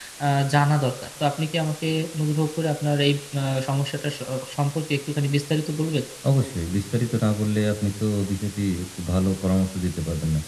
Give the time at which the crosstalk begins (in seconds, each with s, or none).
none